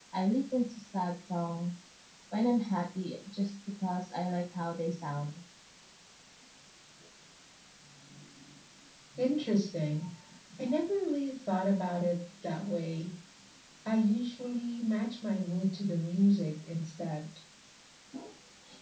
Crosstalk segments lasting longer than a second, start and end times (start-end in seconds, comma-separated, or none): none